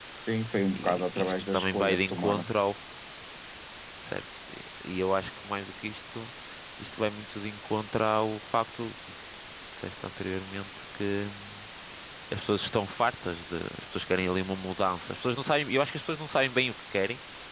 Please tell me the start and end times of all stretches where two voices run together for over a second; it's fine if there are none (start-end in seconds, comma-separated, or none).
0.8-2.4